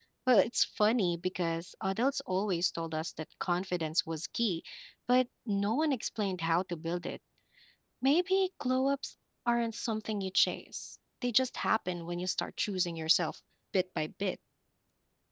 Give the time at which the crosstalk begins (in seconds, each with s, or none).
none